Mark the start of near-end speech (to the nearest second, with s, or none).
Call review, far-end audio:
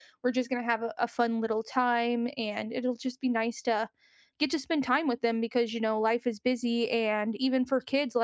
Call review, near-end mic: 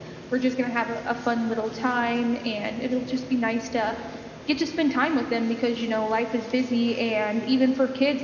none